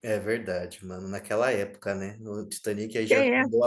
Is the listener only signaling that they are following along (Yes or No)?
Yes